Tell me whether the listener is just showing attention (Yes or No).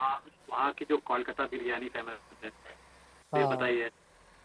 Yes